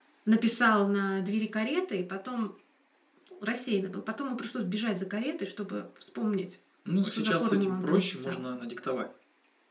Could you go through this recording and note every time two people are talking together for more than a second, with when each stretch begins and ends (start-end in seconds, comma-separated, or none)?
7.1-8.4